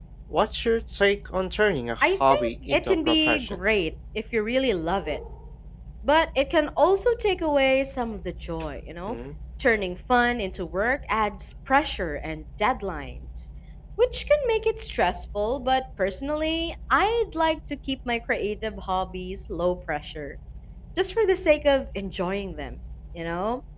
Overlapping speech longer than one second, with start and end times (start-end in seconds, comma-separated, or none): 2.0-3.6